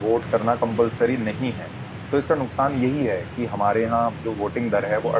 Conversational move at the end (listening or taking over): listening